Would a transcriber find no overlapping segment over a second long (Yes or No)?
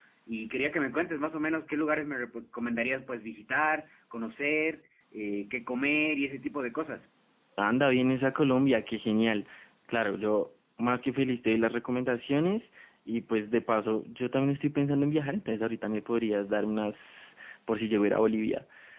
Yes